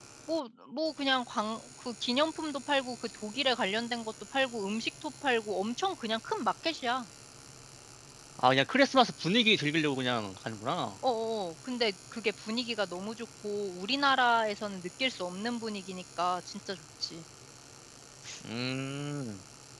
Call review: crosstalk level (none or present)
none